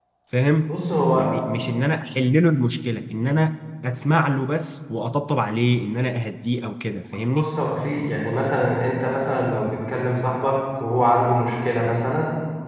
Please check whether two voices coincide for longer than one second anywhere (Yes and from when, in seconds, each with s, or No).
No